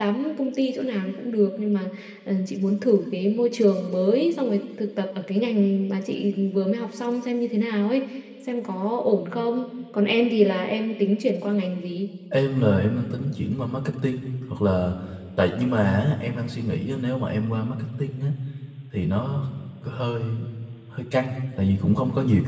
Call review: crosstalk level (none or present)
none